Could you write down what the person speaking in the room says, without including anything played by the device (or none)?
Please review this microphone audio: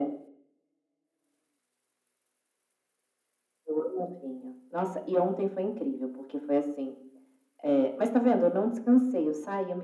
none